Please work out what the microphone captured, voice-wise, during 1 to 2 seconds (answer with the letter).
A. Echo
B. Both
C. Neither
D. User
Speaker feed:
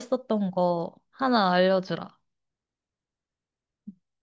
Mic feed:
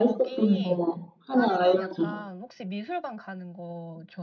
B